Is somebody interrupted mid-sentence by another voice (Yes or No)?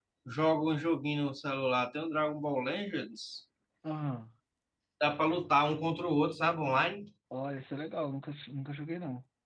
No